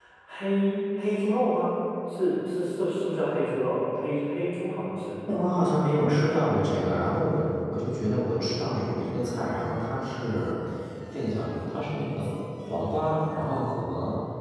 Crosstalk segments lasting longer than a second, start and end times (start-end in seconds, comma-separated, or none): none